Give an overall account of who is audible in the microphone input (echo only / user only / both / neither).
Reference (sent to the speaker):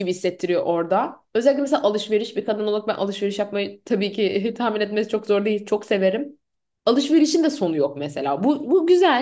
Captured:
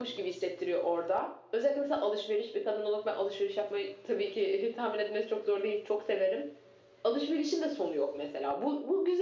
echo only